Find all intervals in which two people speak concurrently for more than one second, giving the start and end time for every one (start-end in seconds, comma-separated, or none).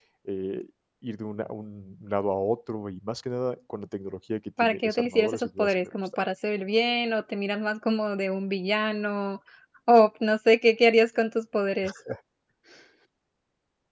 4.6-6.3